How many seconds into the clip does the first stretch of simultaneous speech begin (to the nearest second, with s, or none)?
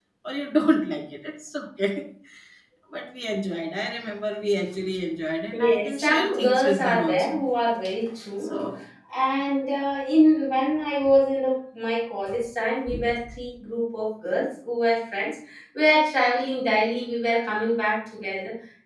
6 s